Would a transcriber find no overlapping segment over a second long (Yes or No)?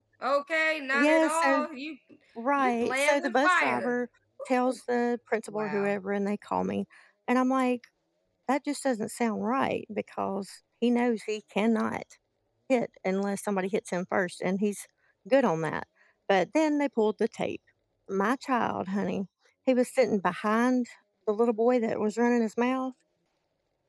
No